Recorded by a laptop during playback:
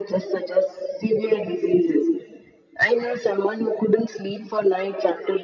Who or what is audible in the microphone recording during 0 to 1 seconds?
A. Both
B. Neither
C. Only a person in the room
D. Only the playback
D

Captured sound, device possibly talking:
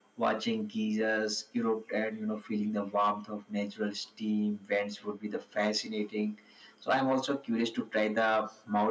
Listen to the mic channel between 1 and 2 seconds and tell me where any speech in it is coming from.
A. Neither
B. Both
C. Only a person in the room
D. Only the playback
D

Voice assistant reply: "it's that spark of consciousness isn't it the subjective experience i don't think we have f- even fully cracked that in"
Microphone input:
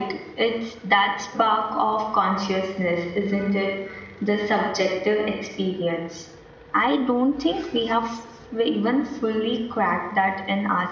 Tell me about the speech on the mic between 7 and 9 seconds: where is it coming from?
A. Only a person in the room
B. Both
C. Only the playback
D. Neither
C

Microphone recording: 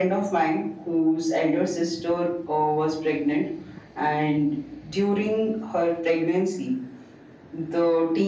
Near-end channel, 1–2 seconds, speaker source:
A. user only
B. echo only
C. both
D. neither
B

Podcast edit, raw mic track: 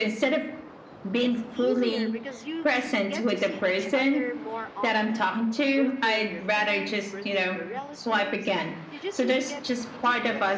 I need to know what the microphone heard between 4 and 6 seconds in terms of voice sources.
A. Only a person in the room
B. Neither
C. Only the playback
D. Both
D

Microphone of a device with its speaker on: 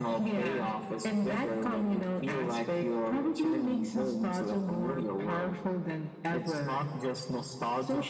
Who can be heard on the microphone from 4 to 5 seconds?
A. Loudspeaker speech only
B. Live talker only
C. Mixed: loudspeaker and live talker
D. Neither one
A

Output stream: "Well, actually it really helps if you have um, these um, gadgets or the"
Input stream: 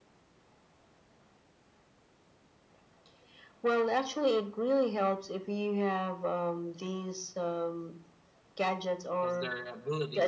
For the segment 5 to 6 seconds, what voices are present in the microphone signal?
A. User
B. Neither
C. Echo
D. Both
C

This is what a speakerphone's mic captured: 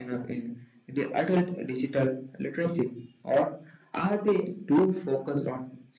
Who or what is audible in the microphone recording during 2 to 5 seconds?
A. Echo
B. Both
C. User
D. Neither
A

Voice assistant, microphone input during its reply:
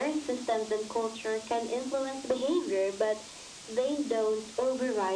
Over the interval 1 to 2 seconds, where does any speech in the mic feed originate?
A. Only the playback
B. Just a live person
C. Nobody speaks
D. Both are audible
A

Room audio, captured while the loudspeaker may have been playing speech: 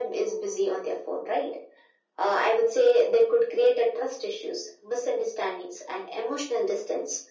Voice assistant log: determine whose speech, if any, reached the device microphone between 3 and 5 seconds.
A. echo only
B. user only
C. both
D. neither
A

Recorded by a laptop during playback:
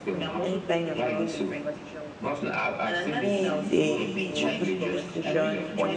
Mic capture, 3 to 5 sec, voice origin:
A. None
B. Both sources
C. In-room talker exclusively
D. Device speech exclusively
B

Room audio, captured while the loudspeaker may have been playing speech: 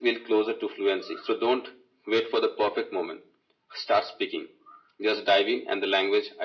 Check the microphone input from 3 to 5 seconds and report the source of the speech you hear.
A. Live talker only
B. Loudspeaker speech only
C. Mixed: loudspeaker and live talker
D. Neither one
B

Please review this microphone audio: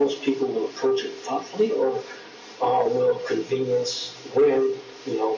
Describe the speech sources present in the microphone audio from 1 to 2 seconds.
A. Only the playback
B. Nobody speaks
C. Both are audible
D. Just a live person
A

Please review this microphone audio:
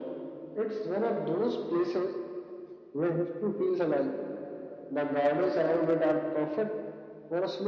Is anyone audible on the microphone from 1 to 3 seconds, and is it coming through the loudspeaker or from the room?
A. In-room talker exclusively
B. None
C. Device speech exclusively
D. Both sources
C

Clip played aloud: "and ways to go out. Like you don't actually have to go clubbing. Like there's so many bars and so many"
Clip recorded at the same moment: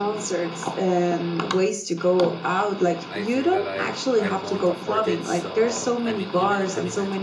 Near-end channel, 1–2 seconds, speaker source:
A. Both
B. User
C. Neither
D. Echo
D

